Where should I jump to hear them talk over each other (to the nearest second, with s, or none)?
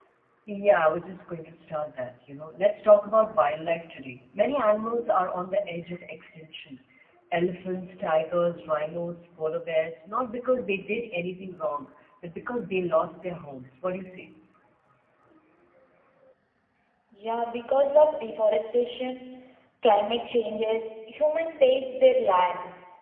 none